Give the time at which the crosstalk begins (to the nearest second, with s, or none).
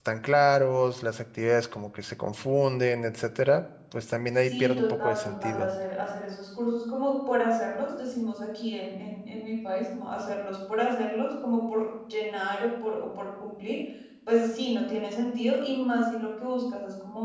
4 s